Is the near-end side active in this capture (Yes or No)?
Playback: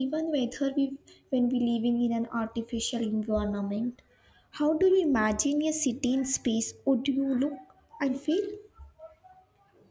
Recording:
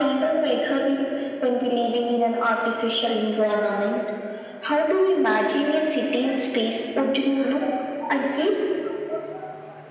No